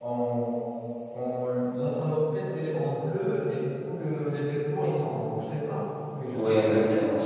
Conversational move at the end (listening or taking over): taking over